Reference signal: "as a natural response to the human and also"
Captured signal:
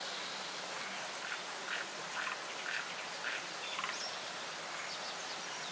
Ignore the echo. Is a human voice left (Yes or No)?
No